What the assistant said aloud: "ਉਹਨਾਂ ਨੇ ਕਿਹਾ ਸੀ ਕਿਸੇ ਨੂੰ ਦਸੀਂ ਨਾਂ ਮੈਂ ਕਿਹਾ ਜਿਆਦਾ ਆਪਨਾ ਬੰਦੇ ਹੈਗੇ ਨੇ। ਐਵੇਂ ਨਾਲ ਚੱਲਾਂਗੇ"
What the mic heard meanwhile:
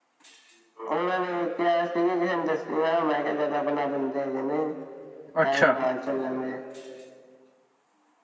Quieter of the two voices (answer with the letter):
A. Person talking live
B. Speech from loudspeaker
B